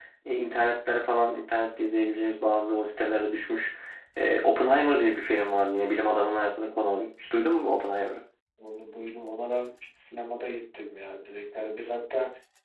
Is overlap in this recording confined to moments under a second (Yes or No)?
Yes